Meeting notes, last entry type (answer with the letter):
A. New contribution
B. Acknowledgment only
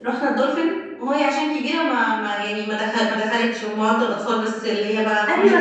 A